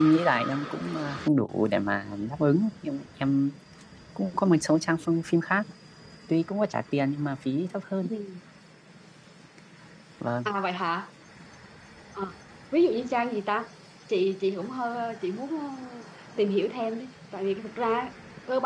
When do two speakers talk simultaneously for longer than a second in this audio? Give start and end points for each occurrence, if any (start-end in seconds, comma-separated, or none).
none